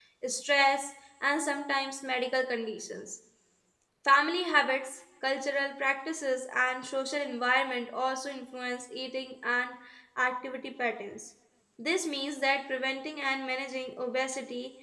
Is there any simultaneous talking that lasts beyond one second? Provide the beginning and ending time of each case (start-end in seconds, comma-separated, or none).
none